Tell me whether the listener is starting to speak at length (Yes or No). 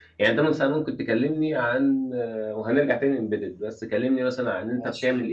No